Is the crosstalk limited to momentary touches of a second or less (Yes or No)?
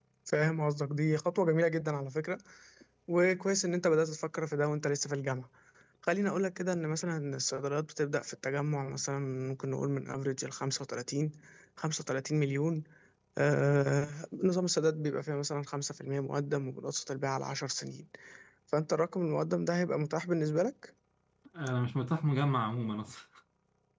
Yes